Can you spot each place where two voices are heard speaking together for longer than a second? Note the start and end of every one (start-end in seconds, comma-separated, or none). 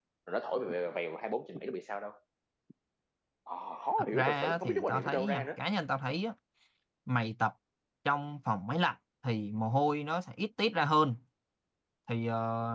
4.1-5.5